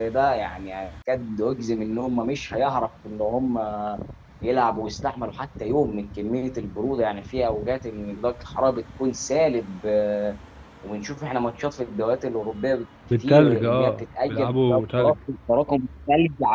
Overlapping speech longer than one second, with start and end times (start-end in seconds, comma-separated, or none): 13.1-15.1